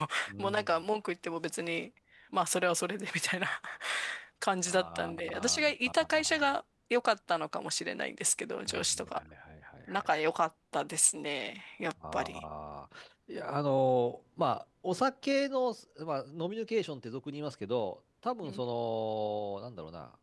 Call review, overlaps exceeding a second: present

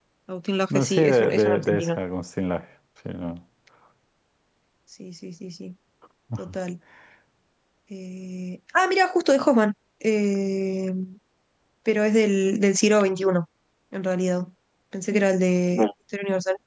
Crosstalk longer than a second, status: present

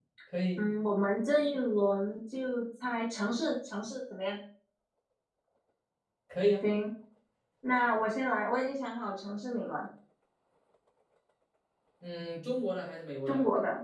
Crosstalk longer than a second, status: none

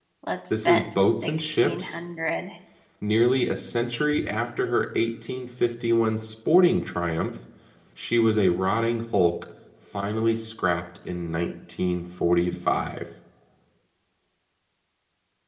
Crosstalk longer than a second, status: present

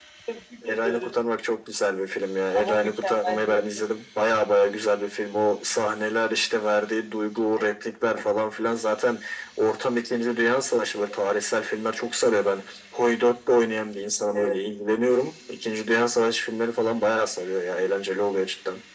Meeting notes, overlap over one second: present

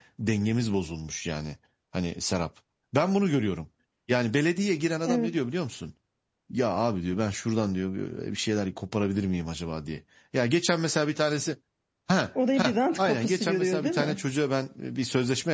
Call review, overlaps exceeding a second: present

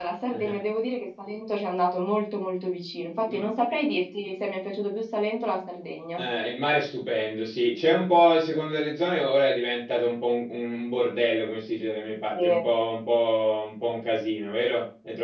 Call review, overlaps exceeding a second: none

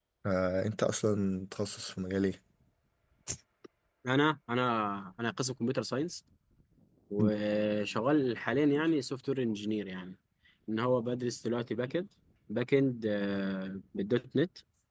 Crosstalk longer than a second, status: none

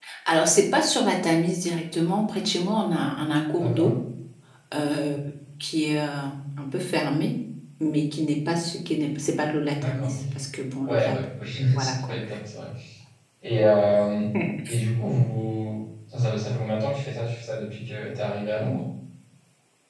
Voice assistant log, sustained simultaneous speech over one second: none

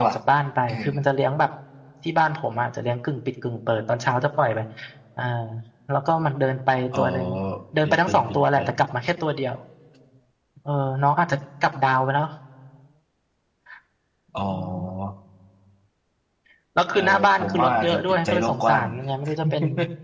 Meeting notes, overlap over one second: present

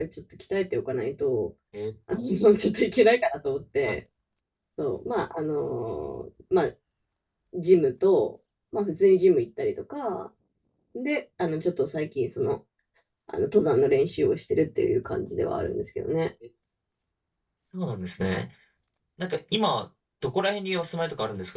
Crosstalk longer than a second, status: none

